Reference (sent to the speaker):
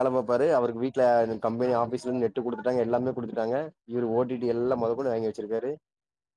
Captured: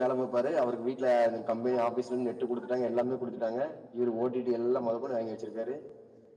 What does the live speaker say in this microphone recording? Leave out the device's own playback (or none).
none